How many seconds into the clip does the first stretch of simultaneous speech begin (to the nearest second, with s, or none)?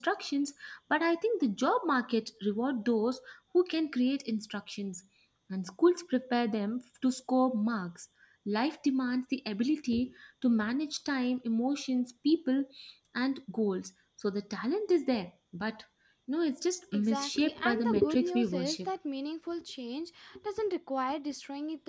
17 s